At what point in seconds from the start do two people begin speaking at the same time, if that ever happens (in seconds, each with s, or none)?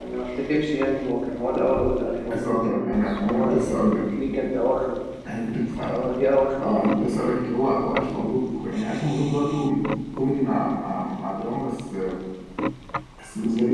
2.3 s